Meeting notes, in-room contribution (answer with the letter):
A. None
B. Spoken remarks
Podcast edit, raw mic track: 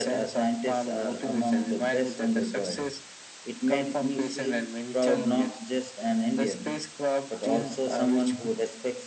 B